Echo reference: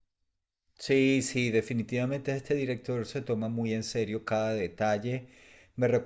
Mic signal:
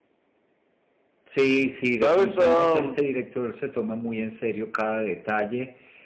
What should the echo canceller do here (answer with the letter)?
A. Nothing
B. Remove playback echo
B